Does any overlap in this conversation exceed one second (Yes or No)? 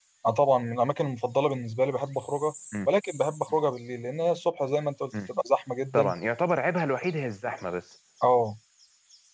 No